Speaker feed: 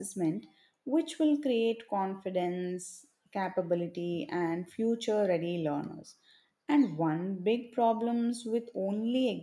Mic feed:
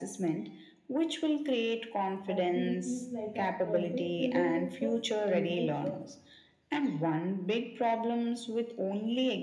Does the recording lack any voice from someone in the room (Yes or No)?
No